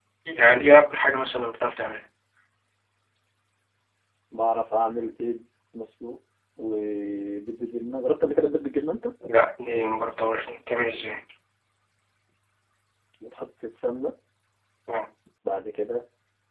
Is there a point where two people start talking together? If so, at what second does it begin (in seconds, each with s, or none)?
none